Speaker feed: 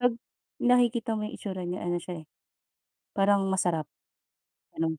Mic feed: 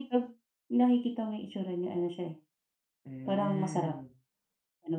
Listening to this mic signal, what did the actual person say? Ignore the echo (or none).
Hmm.